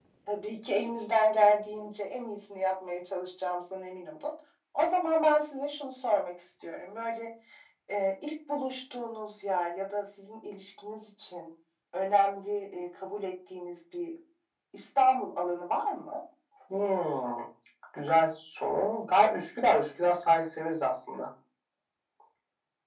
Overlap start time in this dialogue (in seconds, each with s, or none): none